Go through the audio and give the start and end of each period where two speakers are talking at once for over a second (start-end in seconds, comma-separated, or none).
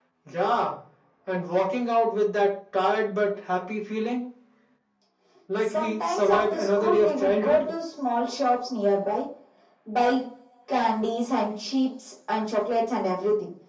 5.6-7.6